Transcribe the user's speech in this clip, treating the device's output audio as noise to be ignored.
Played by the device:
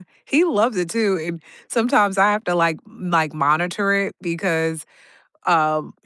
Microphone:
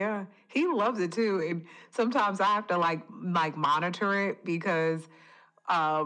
none

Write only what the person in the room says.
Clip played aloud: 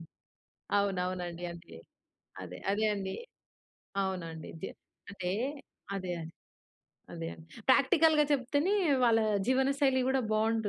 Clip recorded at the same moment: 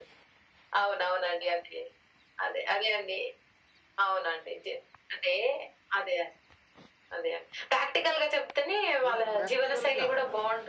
మనం ప్రాక్టికల్‌గా

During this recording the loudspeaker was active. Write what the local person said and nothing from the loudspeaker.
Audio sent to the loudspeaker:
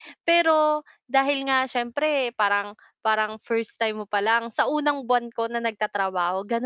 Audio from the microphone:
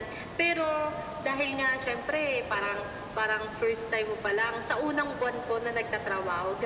none

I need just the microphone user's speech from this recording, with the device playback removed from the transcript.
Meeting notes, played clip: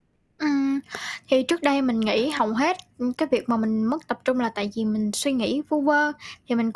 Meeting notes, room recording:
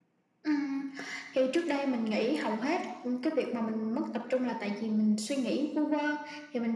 none

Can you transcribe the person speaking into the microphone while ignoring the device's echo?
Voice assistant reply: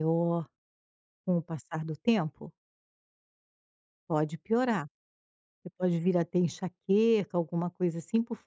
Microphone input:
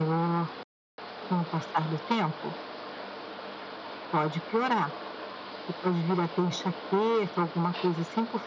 none

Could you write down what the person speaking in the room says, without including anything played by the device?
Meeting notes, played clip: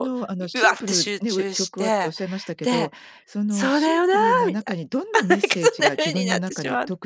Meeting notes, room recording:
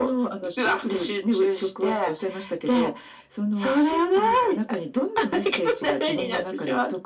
none

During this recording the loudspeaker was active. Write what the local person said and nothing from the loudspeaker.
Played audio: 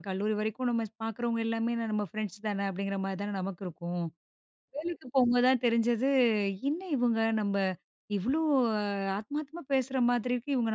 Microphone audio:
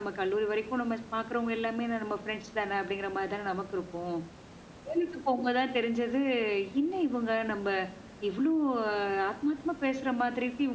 none

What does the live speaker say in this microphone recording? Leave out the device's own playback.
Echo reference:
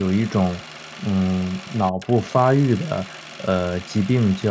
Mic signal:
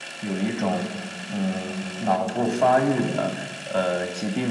none

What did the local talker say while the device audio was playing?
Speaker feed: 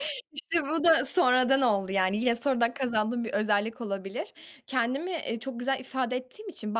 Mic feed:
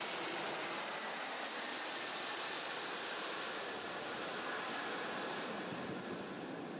none

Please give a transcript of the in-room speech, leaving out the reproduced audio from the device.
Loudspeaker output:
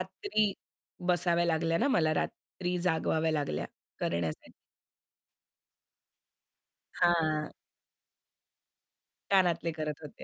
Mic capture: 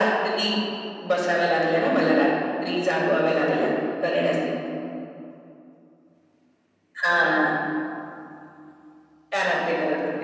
none

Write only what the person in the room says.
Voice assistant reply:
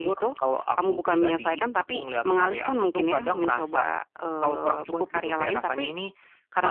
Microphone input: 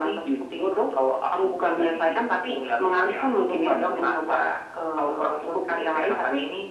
none

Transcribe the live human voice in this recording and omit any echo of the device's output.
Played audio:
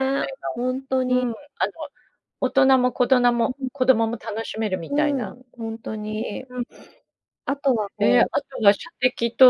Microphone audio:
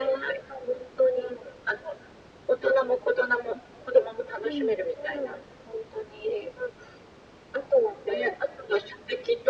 うん。

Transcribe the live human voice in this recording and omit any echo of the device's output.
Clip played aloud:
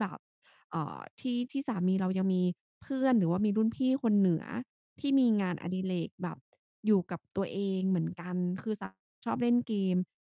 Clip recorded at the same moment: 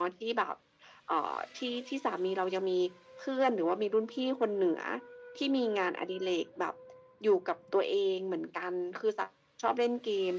none

